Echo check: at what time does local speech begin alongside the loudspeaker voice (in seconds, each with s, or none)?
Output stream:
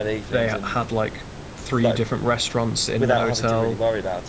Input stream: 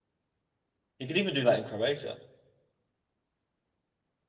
1.0 s